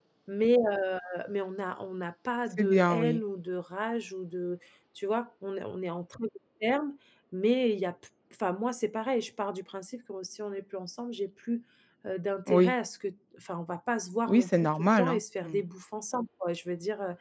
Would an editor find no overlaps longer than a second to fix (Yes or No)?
No